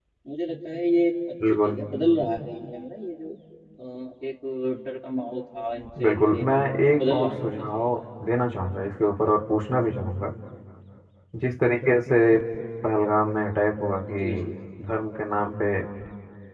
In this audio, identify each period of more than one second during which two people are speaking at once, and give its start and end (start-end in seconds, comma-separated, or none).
6.0-7.8